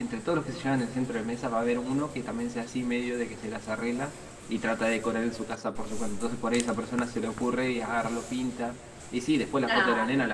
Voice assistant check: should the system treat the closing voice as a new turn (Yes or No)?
No